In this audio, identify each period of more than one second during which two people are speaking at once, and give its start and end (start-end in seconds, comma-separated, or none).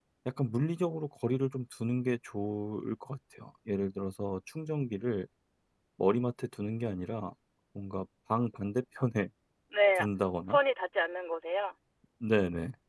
none